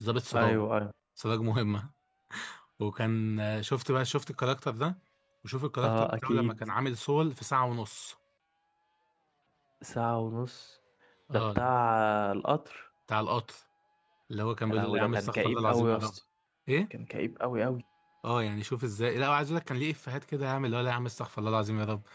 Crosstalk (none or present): present